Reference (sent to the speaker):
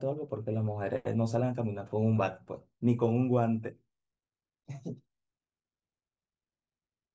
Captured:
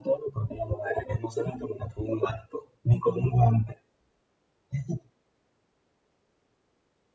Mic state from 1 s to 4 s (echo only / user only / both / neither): echo only